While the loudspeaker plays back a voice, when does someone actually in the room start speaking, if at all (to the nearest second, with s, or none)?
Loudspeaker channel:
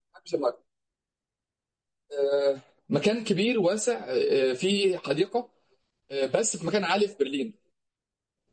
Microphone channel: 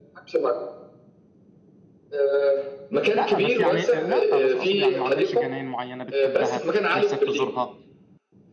3 s